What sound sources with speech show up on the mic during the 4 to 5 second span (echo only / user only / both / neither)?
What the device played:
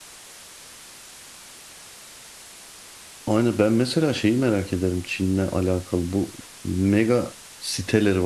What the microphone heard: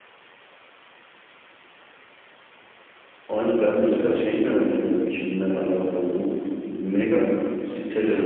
echo only